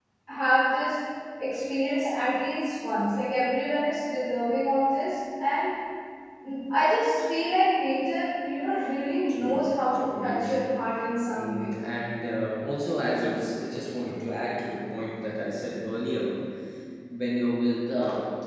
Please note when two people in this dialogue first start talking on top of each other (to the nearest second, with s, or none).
9 s